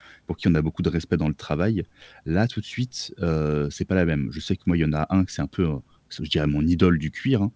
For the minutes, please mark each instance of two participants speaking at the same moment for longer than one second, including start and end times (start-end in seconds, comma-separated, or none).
none